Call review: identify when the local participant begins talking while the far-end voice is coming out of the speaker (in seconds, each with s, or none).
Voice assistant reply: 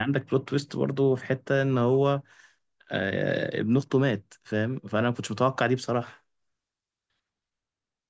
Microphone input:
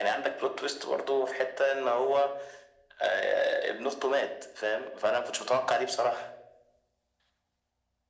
none